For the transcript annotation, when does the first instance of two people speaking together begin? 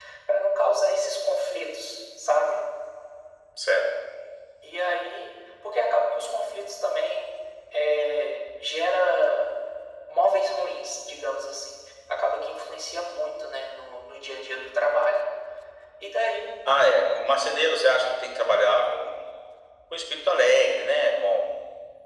none

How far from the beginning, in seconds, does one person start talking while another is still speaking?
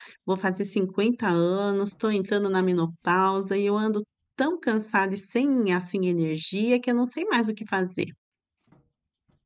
none

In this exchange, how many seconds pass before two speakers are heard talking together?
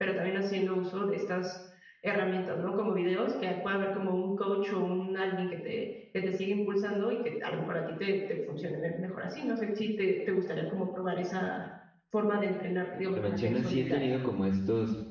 12.3 s

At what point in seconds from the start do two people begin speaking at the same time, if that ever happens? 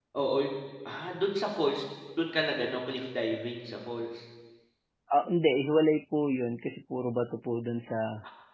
none

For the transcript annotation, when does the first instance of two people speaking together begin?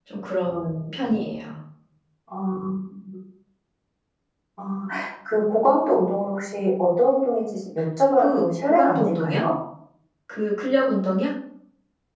8.2 s

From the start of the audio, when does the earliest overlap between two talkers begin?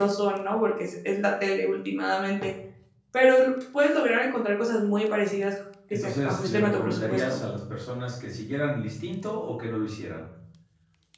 5.9 s

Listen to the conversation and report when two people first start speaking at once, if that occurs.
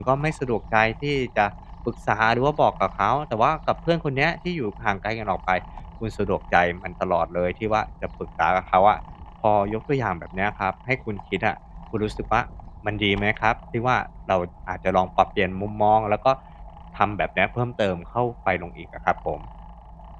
none

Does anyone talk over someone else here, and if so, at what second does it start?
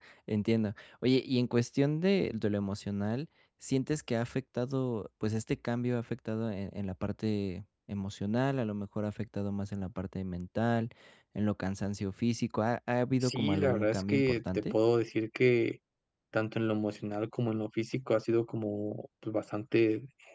13.2 s

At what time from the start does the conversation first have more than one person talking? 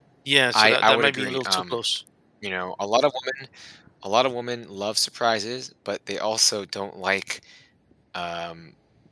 0.5 s

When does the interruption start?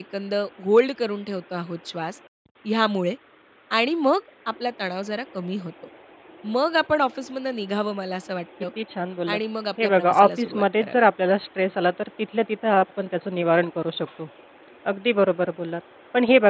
9.8 s

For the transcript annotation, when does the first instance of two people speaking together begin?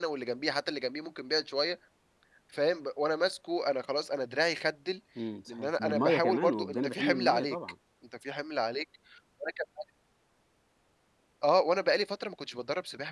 5.5 s

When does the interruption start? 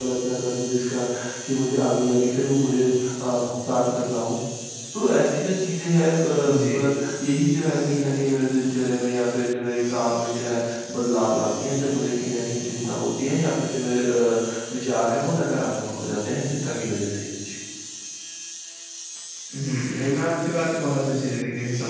none

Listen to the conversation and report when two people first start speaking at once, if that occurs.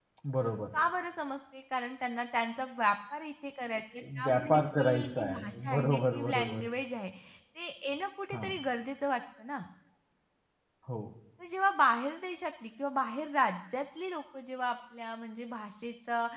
4.2 s

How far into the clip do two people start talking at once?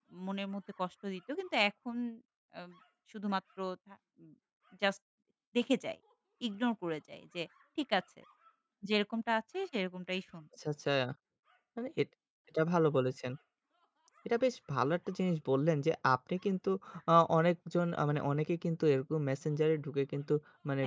none

